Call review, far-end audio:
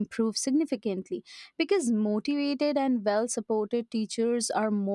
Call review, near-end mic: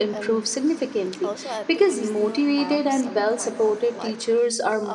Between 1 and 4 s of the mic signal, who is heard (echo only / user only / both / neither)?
both